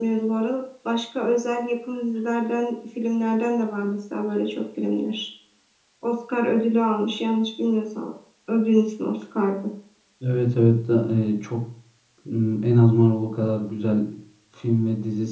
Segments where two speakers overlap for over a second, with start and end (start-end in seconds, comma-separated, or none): none